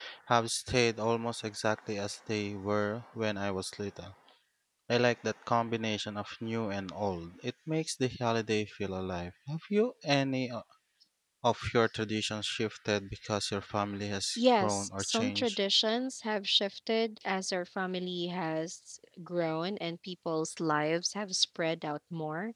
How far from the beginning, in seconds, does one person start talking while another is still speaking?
14.4 s

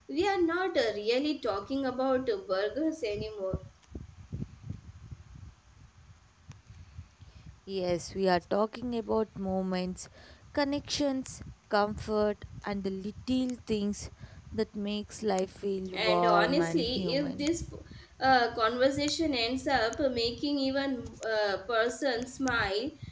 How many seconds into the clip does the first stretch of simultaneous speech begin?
15.9 s

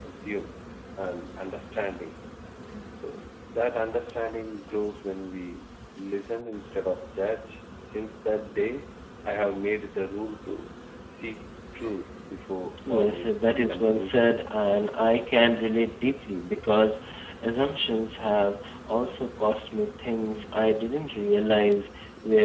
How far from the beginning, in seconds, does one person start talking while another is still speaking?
12.9 s

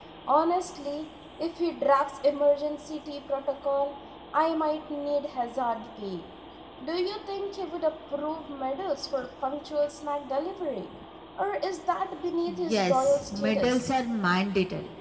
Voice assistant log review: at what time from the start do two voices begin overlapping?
12.5 s

